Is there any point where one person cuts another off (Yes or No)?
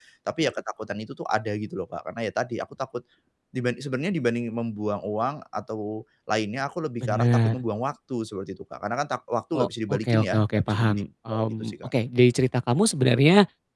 Yes